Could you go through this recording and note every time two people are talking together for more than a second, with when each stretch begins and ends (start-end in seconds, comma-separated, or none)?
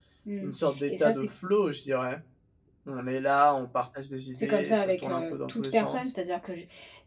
4.4-6.1